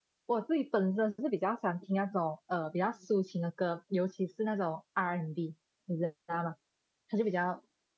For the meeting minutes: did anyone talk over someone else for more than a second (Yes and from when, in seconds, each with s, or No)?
No